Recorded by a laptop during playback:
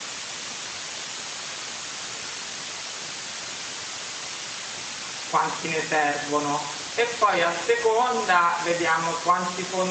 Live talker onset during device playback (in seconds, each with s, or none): 5.2 s